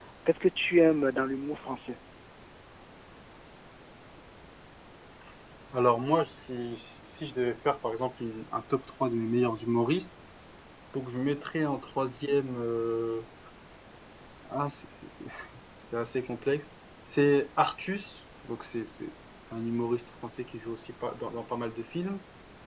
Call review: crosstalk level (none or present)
none